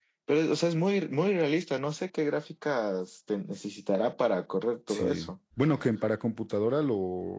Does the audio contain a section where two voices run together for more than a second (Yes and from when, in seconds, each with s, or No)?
No